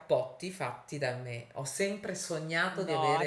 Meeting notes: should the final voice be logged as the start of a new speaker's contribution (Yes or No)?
Yes